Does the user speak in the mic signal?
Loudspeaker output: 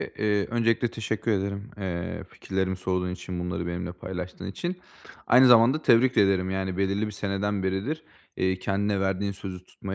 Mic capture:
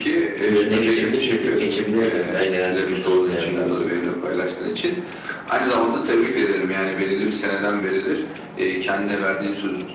Yes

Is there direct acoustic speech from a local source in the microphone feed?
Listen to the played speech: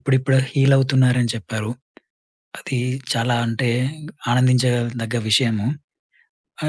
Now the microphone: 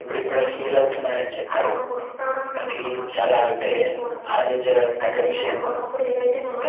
Yes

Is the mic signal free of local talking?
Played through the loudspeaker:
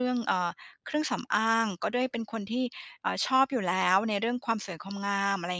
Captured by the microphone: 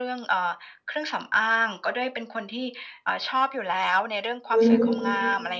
No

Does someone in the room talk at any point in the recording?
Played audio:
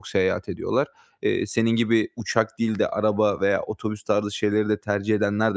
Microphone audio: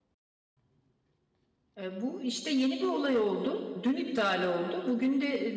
Yes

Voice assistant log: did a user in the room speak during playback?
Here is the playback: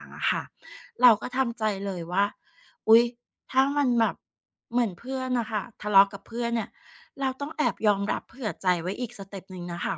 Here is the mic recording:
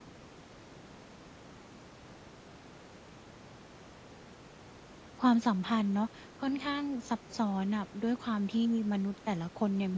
Yes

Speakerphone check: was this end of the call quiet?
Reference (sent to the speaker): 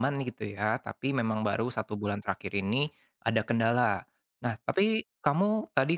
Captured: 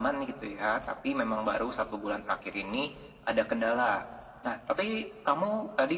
Yes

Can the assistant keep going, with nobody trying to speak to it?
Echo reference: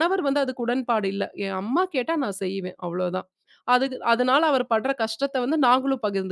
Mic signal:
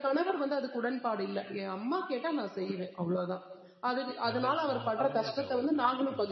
No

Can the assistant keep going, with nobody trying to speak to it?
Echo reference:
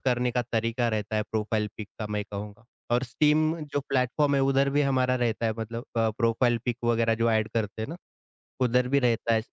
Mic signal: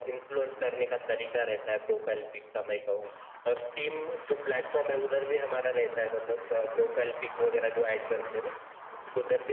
Yes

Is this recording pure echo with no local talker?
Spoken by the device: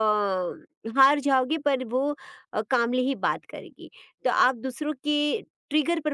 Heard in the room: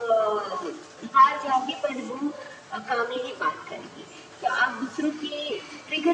Yes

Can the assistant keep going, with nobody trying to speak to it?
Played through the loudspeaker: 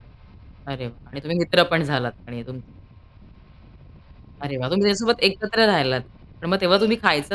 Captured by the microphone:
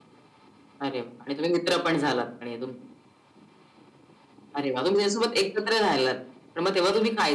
Yes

